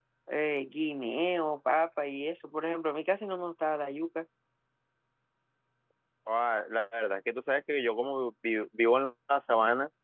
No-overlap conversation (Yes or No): Yes